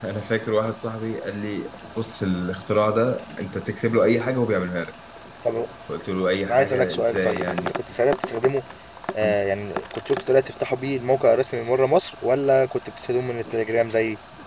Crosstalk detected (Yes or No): Yes